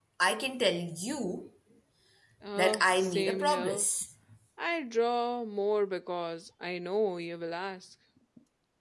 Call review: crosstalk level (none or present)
present